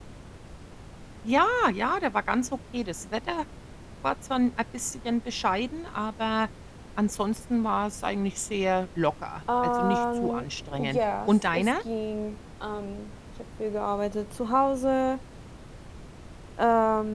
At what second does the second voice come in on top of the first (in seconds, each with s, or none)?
9.5 s